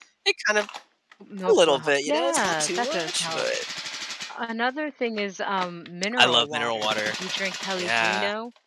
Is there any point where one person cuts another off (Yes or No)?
Yes